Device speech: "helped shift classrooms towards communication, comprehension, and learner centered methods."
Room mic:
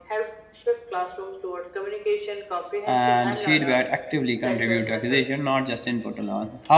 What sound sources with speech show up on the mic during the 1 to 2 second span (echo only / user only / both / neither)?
echo only